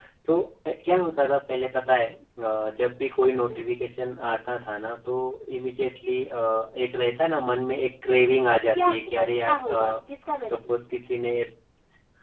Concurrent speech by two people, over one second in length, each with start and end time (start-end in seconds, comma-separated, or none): 8.8-10.0